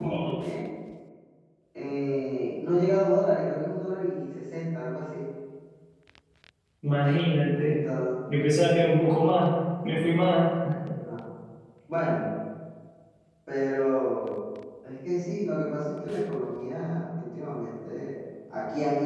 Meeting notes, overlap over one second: none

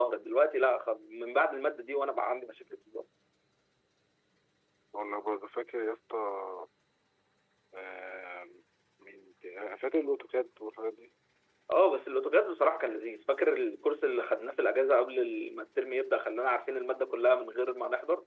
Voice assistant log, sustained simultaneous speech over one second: none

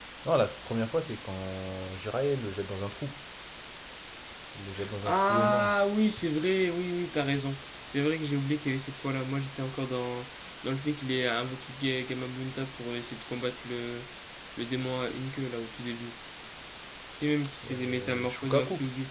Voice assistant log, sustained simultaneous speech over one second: present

